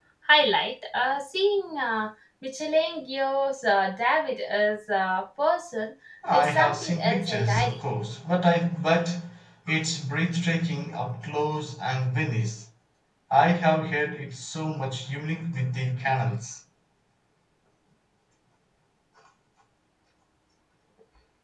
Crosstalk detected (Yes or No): Yes